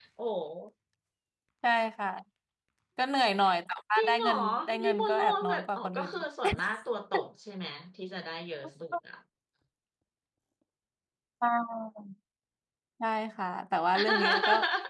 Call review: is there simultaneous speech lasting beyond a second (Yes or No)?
Yes